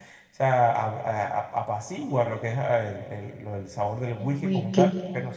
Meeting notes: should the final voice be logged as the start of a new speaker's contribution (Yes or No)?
No